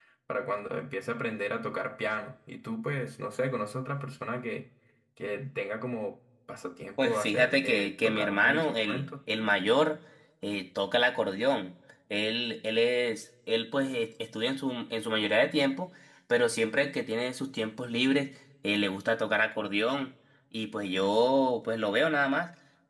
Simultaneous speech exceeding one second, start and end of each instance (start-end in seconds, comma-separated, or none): 7.0-9.1